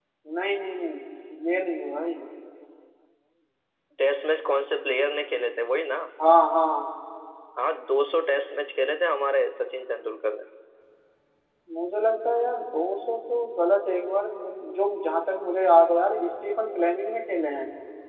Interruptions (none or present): none